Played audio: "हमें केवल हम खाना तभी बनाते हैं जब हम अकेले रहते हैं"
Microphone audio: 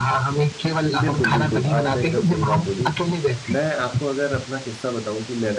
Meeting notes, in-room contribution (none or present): present